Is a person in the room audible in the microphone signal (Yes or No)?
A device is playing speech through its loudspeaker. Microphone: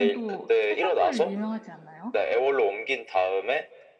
Yes